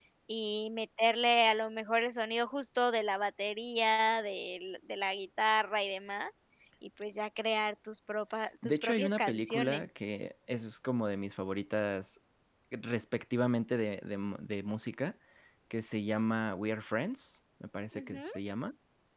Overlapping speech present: Yes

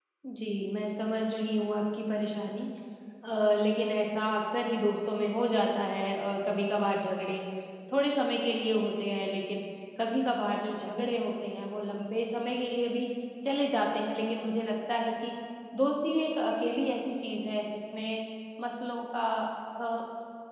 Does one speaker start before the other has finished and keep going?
No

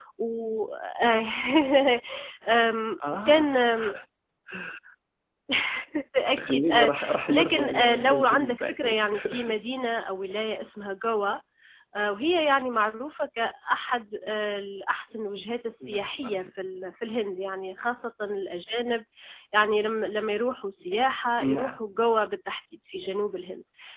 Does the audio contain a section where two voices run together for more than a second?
Yes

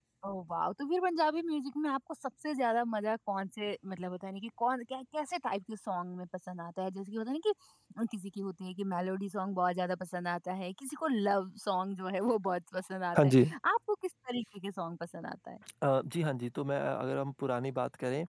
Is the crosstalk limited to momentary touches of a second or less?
Yes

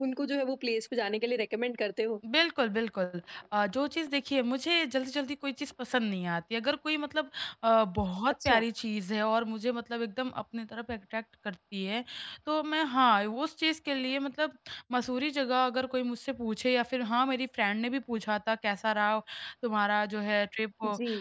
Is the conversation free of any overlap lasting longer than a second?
Yes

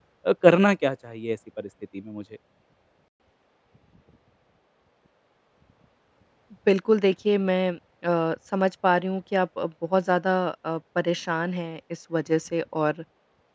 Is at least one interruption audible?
No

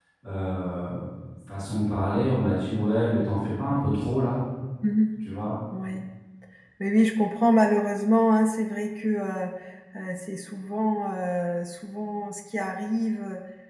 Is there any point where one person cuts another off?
No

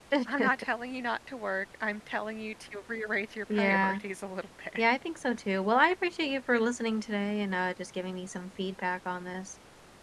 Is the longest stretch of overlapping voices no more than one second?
Yes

